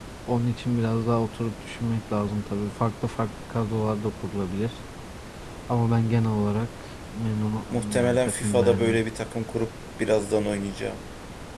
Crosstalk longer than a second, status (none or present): present